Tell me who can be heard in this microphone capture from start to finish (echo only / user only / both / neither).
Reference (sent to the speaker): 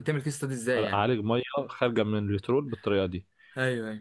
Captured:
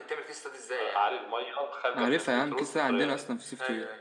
both